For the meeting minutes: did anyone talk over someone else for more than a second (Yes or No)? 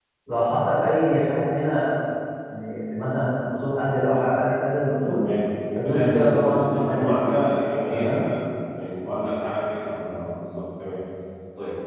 Yes